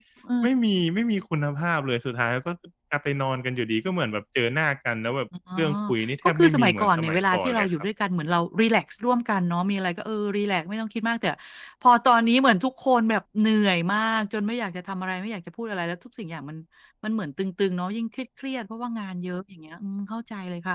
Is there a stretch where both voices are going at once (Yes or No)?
Yes